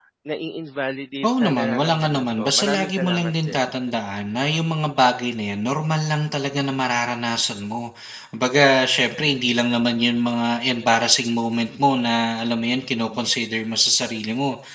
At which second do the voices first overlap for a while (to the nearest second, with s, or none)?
1 s